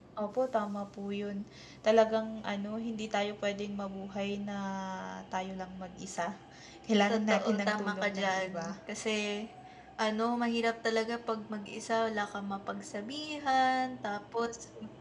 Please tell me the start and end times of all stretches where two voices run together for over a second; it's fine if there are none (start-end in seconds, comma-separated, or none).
7.1-8.7